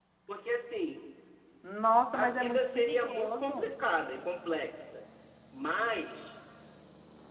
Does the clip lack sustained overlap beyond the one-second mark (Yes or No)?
No